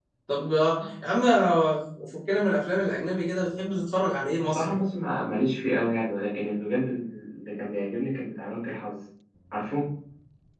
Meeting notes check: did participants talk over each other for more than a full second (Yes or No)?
No